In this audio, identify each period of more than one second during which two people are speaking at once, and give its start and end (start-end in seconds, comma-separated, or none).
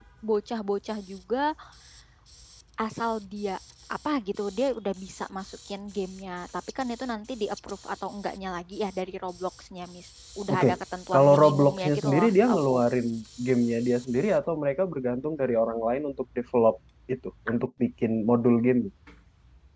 11.1-12.7